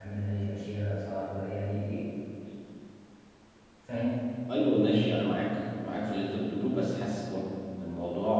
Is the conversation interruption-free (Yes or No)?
Yes